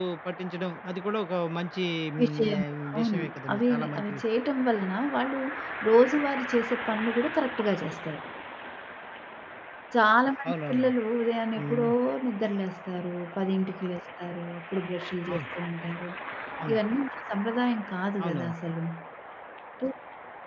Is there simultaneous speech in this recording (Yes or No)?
Yes